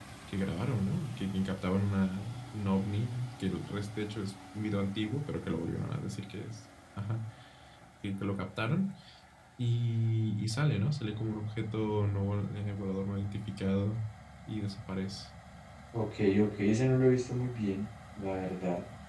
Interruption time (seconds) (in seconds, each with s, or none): none